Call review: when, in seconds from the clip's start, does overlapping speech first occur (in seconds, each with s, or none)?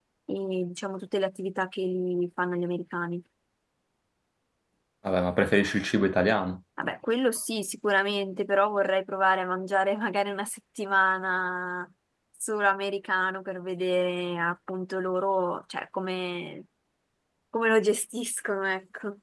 none